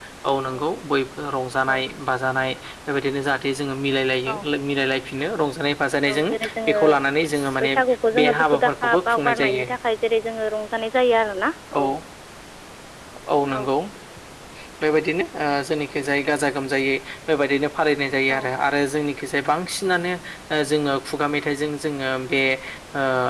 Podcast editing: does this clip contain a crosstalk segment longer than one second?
Yes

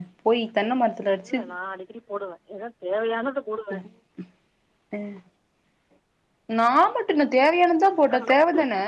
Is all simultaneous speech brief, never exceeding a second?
Yes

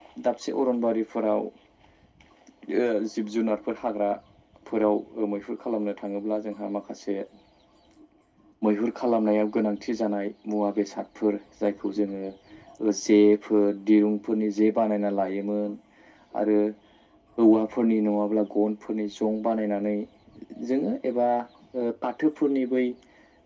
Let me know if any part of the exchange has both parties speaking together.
No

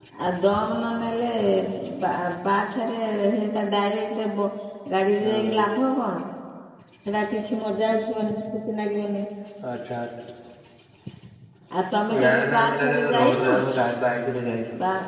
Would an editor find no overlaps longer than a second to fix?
No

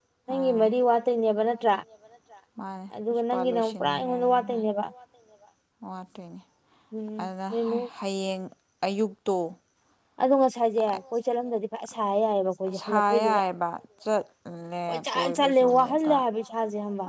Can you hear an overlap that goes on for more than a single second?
Yes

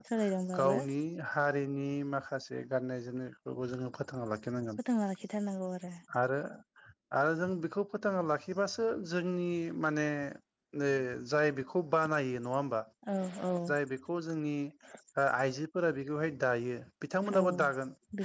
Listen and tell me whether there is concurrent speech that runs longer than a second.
No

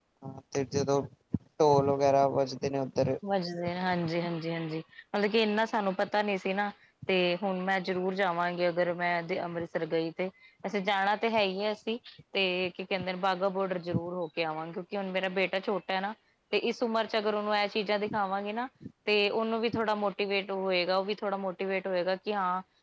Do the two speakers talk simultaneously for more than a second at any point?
No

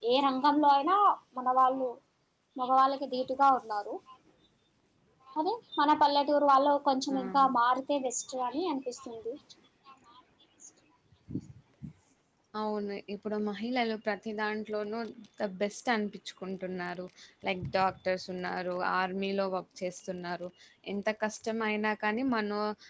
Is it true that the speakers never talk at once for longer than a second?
Yes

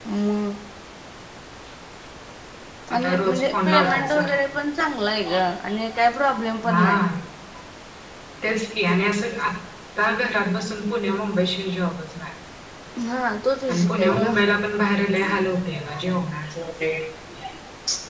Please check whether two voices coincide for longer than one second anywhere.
Yes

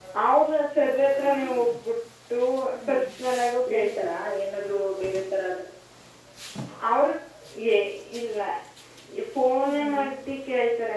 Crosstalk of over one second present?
No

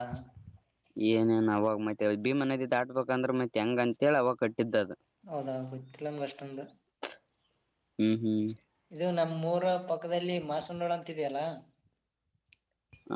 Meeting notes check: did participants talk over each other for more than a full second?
No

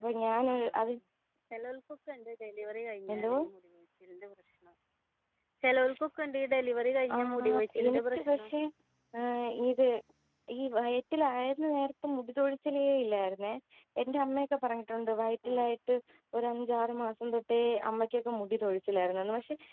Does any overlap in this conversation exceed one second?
Yes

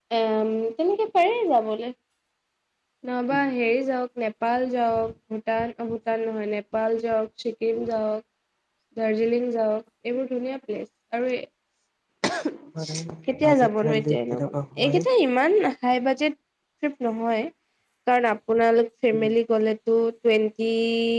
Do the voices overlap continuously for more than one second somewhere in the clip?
Yes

